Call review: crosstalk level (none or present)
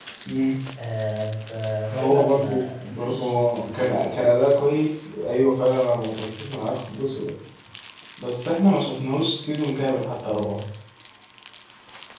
present